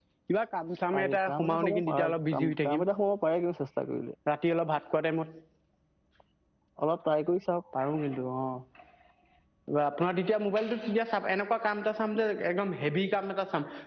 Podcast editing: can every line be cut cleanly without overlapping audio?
No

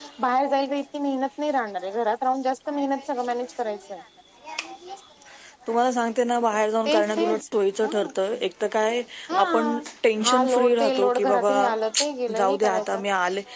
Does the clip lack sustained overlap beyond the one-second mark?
No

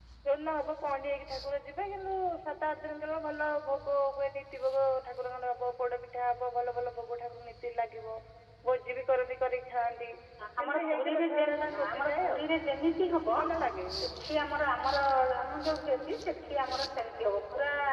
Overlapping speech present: Yes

